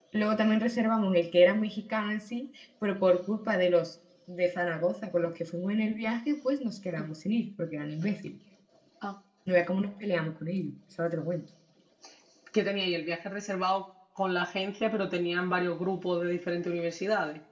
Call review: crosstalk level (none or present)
none